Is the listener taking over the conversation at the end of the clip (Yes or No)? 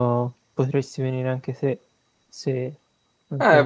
Yes